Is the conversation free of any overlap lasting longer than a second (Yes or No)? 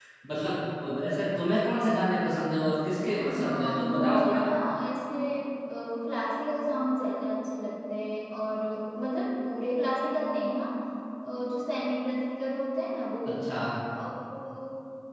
No